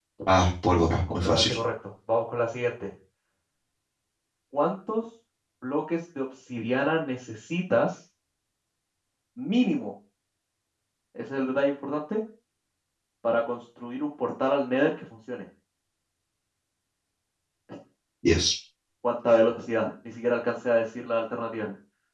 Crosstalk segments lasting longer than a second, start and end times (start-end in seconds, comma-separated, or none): none